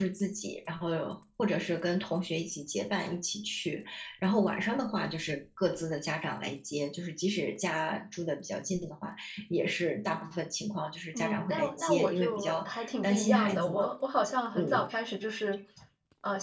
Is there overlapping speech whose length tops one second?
Yes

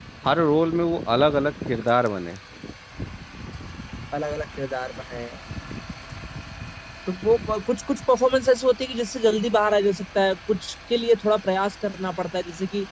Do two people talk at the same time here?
No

